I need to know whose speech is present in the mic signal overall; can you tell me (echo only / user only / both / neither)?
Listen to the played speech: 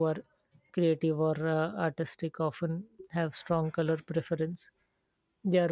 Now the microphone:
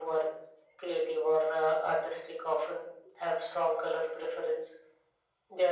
echo only